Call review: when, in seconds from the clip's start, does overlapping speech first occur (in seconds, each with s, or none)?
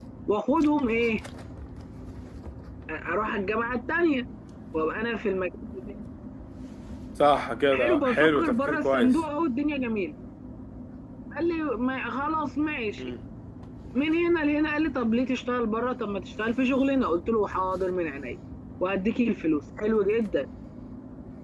7.7 s